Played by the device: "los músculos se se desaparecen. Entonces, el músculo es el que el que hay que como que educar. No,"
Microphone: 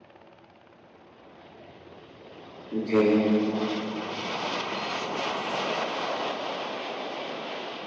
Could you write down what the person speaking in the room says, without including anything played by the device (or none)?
Okey.